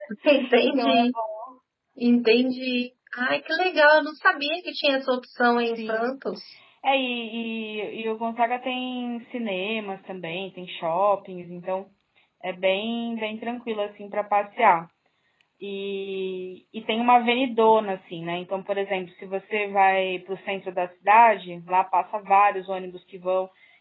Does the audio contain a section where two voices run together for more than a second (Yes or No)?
No